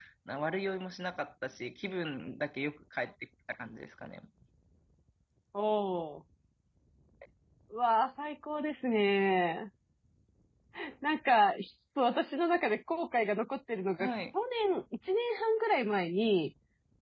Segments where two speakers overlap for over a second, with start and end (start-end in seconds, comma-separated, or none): none